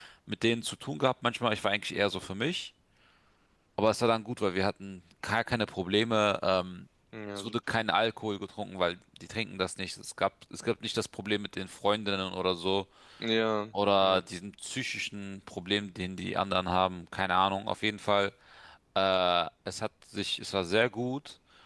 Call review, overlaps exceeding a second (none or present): none